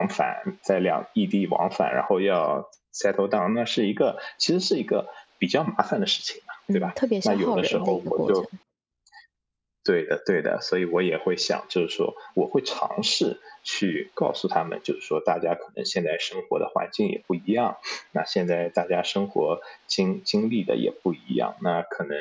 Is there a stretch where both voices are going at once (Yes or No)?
Yes